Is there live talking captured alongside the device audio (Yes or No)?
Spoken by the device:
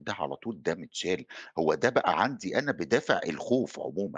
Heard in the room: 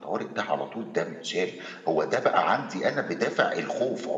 No